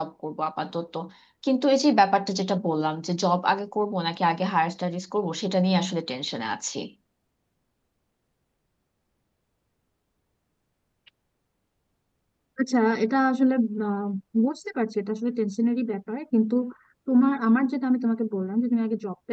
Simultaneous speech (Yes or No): No